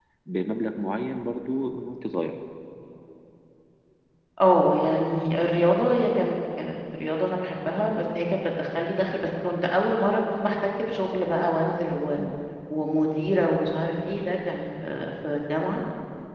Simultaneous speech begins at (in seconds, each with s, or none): none